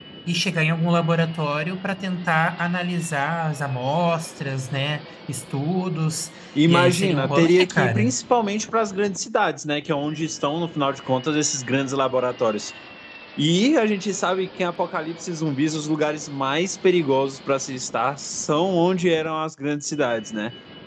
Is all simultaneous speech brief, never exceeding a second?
No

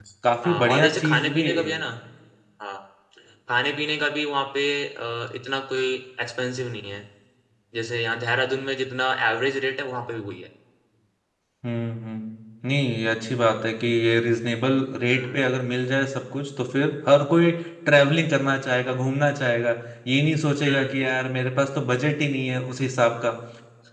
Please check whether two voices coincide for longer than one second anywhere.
Yes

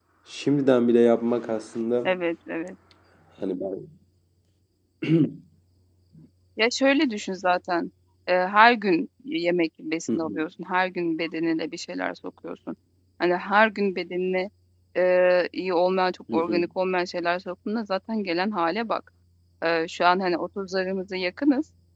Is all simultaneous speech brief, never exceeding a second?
Yes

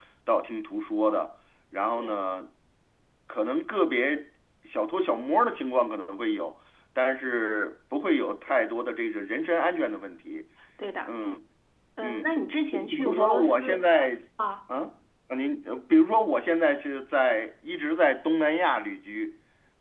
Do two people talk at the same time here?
Yes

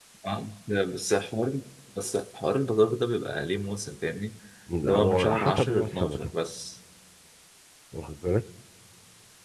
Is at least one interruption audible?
Yes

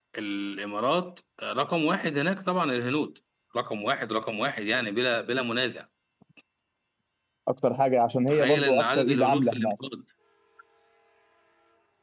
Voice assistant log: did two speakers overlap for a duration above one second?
Yes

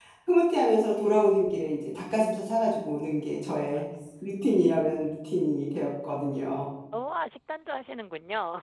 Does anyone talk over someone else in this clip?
No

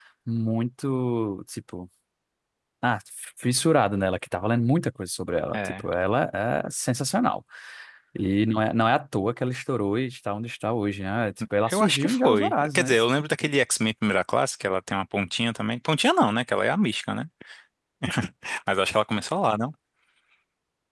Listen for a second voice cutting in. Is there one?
Yes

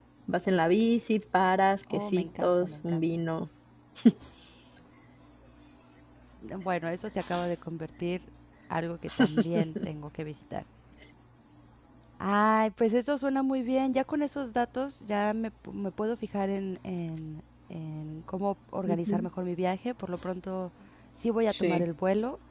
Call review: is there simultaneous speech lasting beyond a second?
Yes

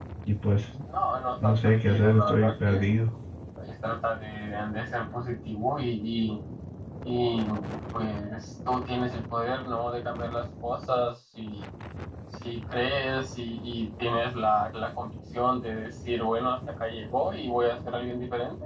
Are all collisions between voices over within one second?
No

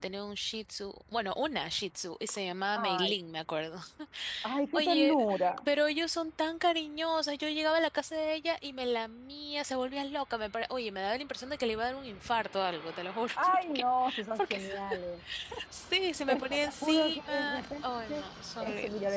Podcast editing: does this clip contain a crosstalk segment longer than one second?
Yes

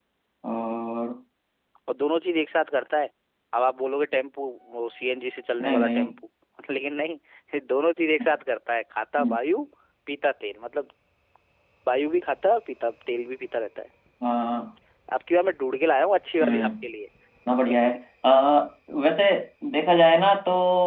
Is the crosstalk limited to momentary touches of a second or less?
Yes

